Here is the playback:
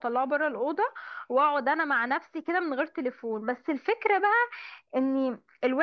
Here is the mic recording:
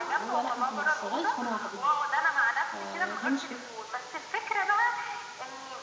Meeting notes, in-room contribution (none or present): present